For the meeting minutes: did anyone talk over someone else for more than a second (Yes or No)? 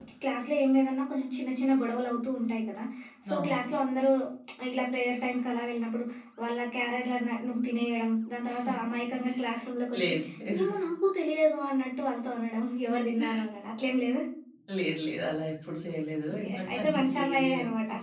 Yes